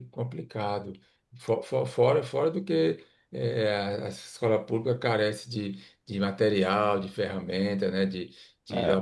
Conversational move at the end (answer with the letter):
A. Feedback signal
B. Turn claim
A